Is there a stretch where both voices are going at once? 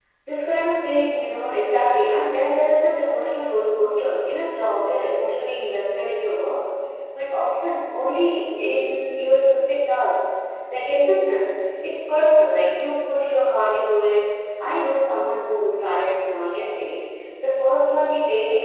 No

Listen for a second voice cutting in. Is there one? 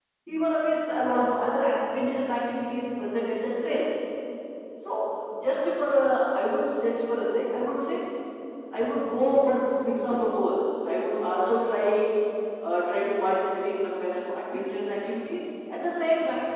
No

